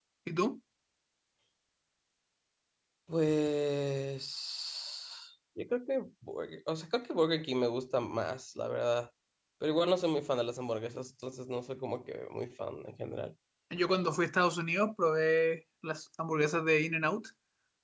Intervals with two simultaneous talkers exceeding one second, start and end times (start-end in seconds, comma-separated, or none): none